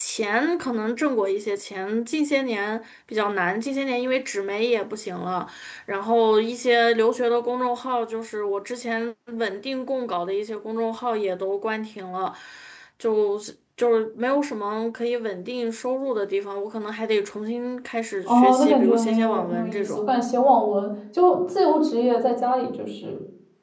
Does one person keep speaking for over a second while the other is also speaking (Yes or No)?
Yes